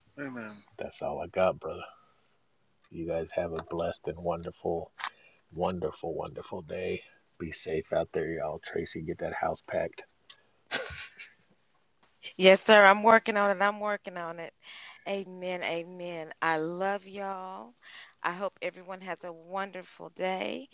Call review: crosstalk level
none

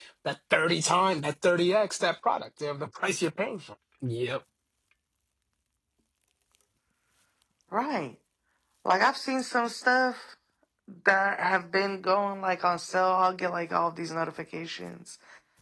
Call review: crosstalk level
none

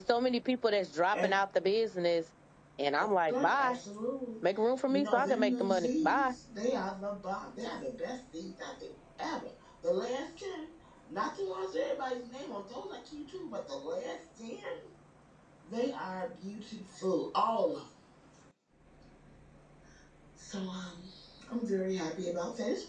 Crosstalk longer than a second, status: present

